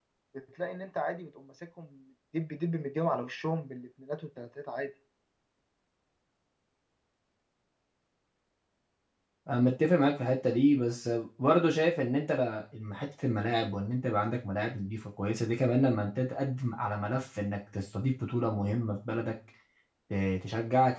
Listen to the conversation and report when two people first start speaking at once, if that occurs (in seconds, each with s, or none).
none